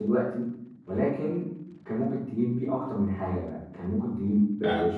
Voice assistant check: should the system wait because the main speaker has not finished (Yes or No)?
Yes